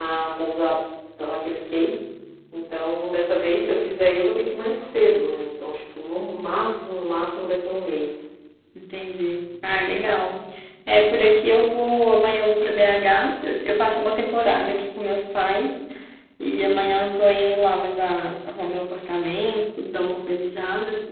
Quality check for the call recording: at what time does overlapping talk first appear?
none

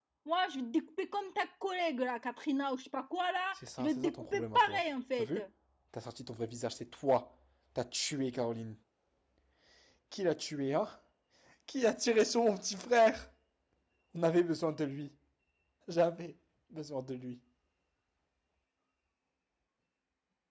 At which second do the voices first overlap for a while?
3.6 s

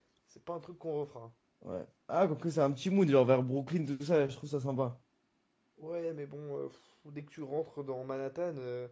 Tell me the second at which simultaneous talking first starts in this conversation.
none

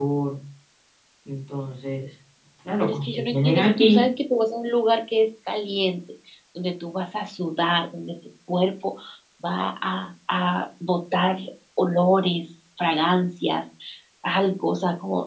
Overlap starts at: 2.8 s

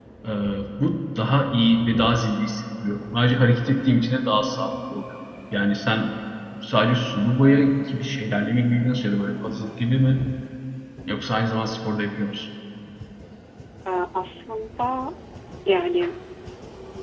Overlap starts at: none

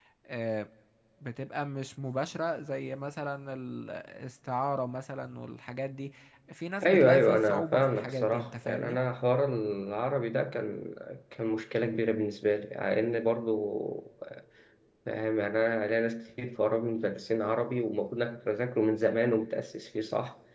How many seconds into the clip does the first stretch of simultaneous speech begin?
6.8 s

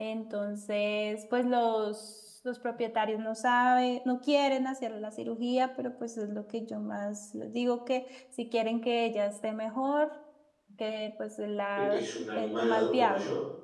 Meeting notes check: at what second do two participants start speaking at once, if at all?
11.8 s

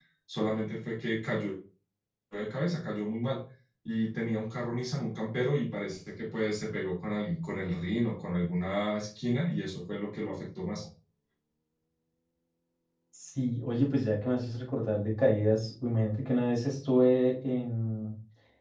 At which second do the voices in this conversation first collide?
none

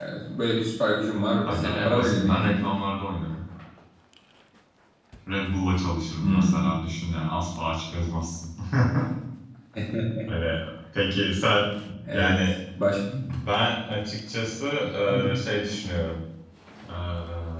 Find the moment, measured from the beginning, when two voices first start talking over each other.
1.5 s

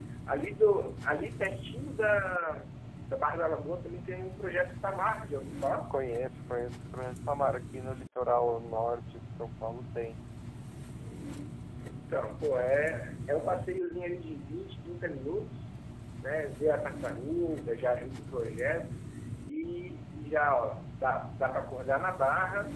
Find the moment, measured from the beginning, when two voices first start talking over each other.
none

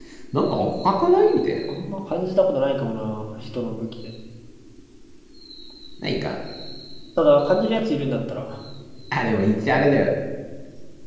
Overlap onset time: none

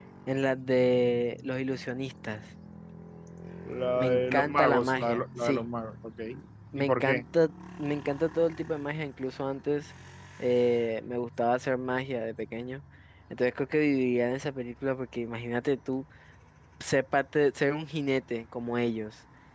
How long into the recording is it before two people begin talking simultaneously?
4.0 s

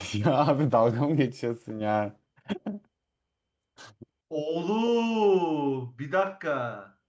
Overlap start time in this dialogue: none

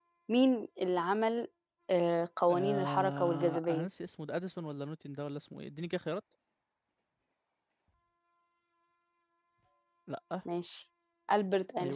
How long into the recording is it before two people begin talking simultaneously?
2.5 s

